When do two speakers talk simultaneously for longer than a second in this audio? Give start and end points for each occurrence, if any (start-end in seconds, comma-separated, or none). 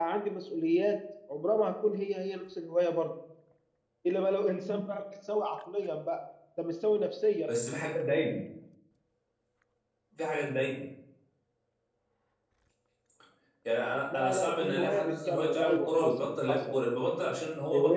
14.1-16.8